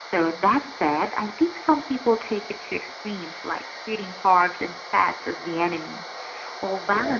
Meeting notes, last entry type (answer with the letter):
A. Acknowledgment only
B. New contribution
A